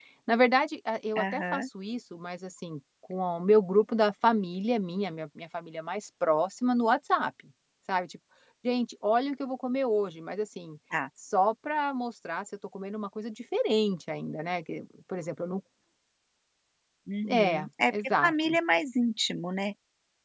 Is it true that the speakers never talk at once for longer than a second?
No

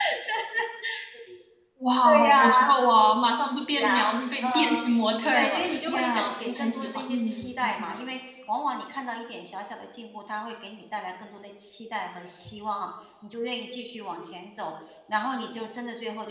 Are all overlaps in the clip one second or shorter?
No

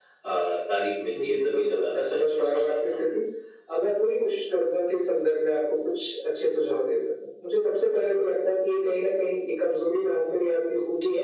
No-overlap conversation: No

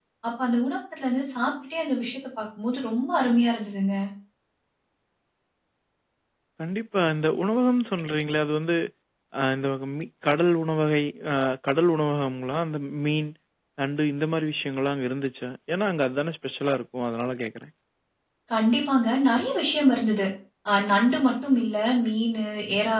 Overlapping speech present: No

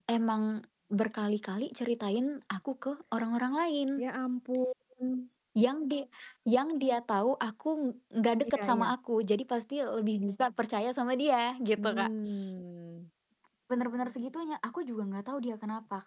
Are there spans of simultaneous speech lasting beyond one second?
No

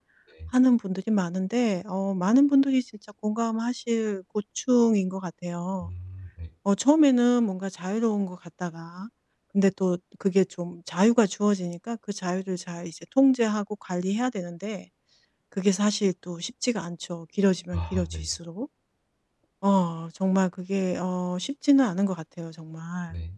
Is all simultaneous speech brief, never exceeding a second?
Yes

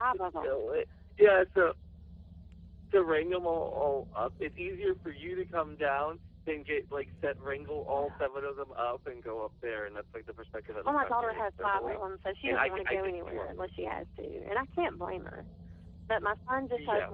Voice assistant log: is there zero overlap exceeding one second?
No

